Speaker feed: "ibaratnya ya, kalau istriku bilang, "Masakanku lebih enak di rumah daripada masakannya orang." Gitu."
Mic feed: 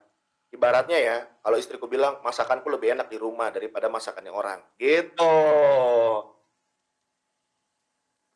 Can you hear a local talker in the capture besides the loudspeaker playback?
No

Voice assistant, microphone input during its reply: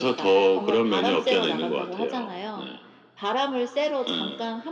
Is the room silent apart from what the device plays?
Yes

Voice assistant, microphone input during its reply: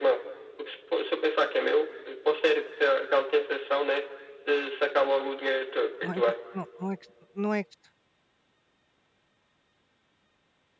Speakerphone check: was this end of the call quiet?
No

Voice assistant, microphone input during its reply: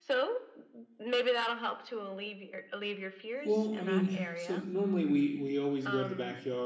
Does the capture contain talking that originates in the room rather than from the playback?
Yes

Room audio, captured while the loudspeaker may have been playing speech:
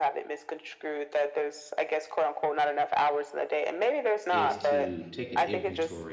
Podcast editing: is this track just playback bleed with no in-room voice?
No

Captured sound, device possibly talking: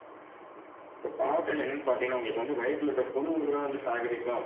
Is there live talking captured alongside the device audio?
No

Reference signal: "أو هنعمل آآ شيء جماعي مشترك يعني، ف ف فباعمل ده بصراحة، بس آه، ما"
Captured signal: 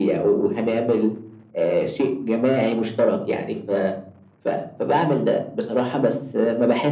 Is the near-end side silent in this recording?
Yes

